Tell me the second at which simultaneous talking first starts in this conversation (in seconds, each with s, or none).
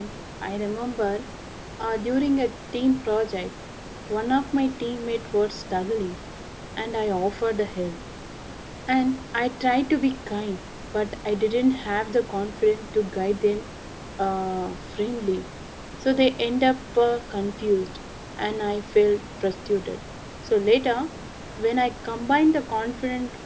none